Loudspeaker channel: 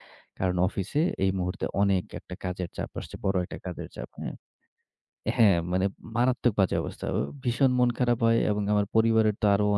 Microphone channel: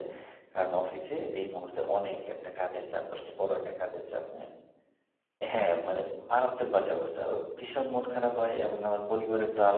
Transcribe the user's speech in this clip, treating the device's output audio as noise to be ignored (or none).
none